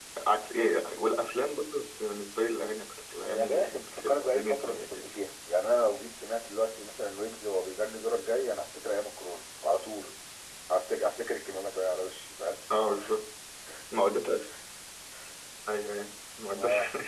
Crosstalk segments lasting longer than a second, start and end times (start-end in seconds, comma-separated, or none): 3.2-5.1